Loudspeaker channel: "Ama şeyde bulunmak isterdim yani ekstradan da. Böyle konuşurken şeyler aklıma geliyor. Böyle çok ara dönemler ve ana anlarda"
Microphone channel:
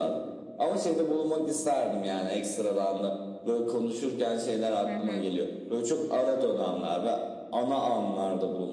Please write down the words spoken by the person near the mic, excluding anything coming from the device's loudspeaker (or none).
Hı hı.